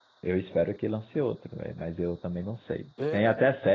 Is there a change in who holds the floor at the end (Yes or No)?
No